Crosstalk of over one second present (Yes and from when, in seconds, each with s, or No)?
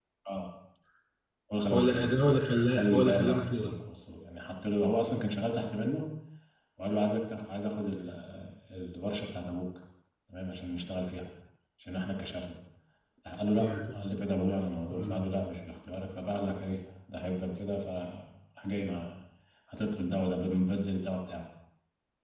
Yes, from 1.7 s